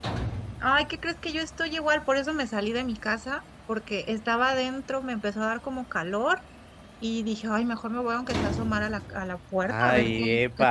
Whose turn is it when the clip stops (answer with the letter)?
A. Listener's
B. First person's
A